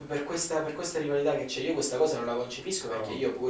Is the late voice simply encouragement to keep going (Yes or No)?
Yes